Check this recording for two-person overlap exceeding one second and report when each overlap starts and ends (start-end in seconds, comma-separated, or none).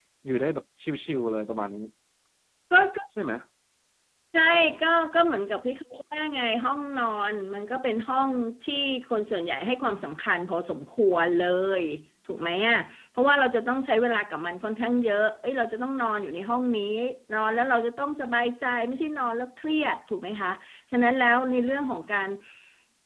none